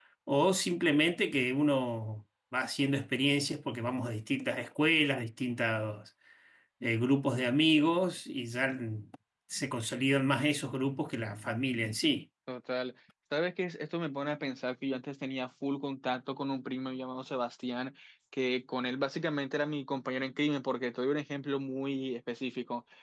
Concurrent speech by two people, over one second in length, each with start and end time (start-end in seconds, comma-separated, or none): none